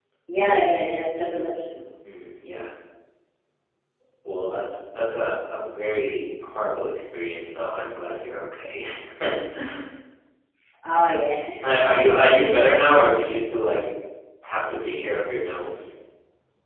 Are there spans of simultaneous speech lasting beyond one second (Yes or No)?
No